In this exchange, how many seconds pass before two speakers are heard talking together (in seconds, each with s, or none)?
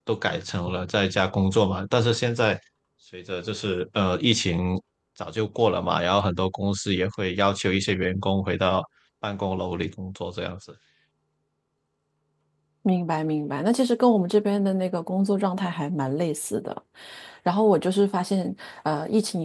none